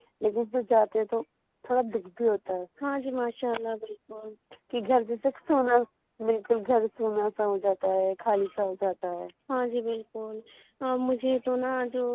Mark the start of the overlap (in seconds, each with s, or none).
none